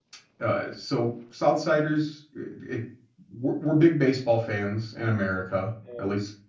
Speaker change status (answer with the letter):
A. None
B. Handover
B